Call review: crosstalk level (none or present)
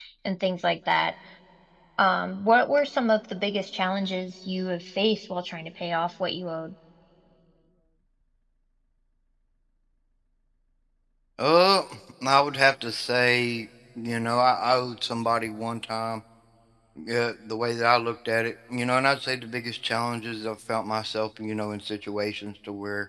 none